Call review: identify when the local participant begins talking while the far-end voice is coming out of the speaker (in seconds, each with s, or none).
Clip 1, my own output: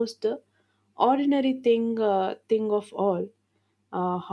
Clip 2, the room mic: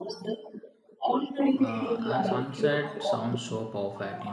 1.6 s